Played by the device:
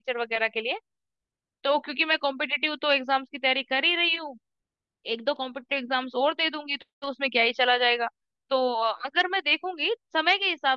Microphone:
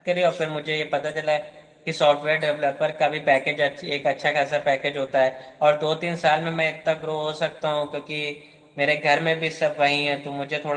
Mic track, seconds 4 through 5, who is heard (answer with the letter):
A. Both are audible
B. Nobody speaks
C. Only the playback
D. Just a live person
D